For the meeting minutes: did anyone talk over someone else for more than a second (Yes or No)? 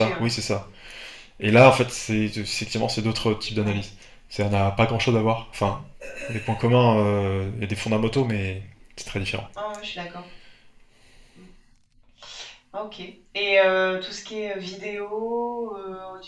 No